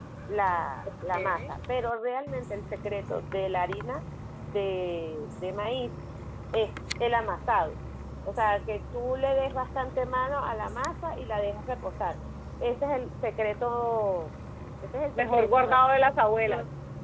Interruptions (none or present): present